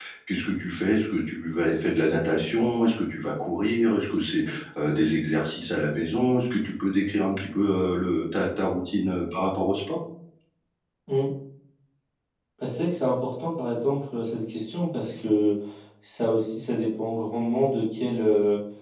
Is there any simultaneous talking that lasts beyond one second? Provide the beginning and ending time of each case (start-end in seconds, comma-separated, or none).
none